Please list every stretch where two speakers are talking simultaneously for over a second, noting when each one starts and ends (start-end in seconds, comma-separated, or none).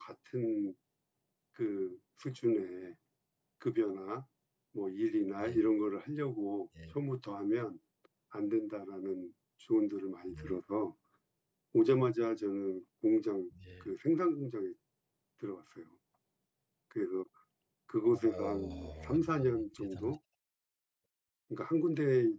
18.0-20.1